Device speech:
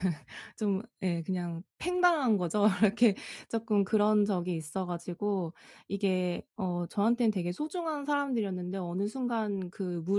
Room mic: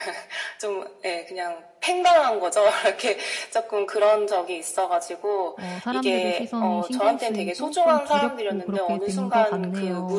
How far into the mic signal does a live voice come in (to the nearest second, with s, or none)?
6 s